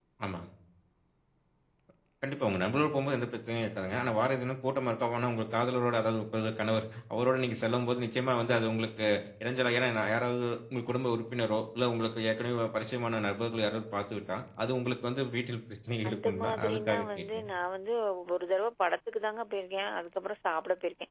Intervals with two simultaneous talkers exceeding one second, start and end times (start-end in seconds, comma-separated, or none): 16.1-17.5